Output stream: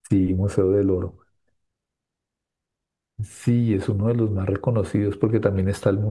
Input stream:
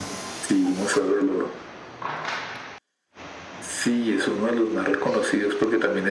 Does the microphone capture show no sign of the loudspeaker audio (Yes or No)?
No